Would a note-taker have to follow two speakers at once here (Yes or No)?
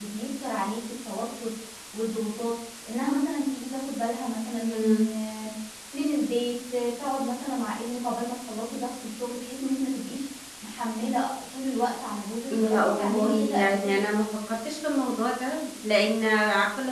Yes